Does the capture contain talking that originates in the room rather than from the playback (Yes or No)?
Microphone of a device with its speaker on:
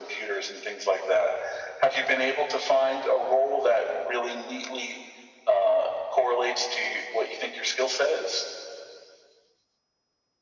No